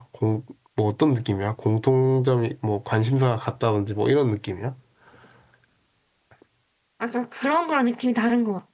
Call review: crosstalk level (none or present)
none